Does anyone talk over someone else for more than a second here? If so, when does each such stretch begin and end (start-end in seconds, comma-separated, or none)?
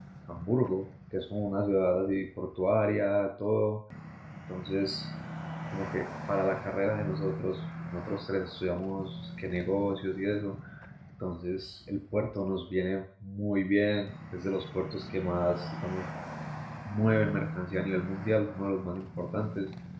none